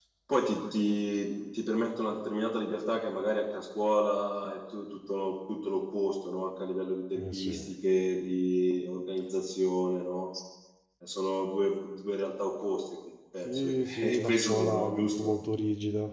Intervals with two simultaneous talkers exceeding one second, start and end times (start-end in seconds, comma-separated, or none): 13.4-15.3